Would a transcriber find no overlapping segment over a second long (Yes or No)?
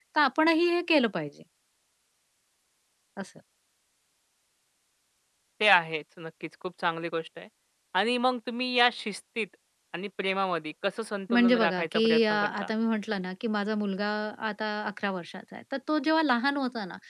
No